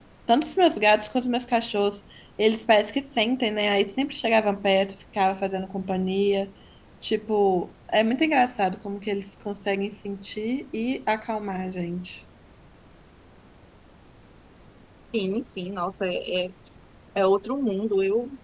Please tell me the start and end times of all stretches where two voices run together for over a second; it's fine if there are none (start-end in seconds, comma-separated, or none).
none